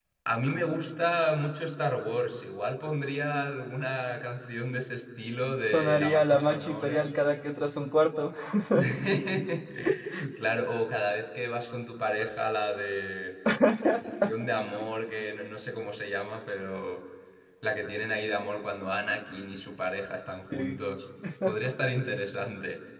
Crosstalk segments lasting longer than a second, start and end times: 5.7-7.0

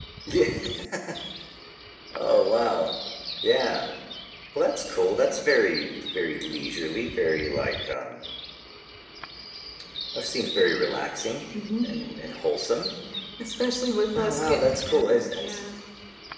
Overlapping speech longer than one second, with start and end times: 14.2-15.6

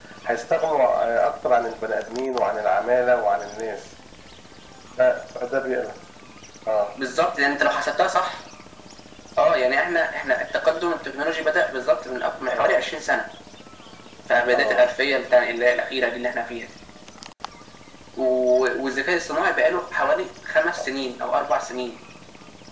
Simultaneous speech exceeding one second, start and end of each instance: none

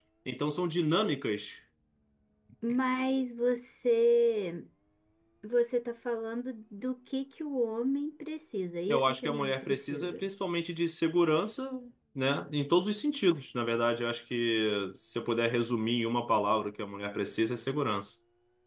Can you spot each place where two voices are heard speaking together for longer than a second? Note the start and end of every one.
8.9-10.3

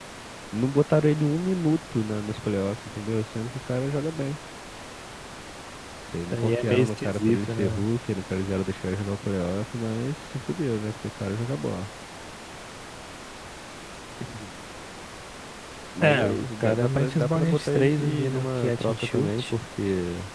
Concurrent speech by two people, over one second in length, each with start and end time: 6.3-7.8, 16.0-19.5

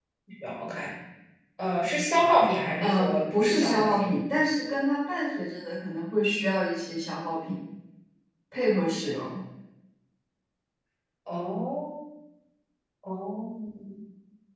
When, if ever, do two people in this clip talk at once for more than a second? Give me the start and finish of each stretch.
2.8-4.1

